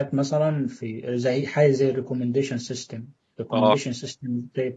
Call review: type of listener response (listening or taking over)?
listening